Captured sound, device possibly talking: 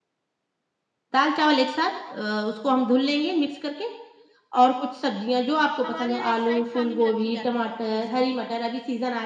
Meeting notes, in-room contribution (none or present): present